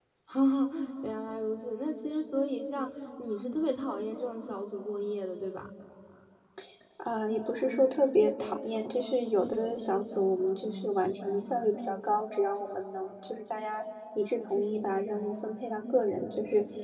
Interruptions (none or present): none